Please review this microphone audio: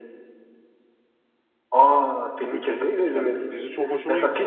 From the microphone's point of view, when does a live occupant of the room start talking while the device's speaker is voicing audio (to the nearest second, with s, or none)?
2 s